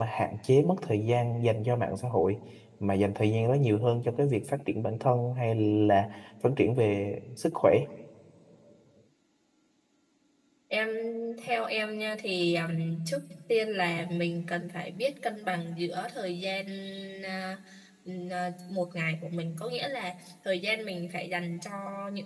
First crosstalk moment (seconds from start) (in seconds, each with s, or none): none